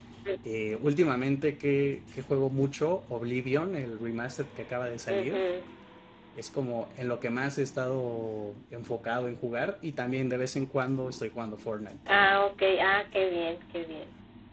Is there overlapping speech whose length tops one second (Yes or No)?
No